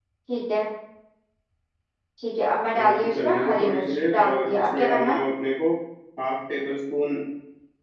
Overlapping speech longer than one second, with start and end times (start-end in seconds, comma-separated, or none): 2.8-5.2